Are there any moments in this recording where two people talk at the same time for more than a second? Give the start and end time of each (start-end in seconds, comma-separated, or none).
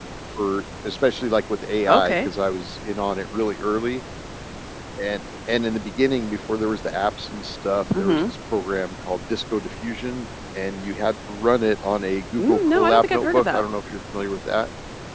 12.4-13.7